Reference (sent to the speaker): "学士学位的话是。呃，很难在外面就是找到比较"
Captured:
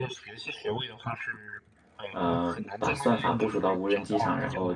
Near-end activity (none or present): present